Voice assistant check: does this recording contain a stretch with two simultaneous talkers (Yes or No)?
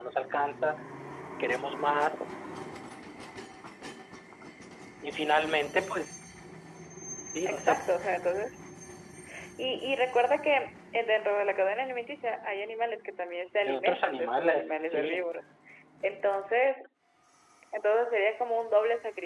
Yes